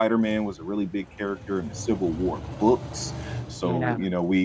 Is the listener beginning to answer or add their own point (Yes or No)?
No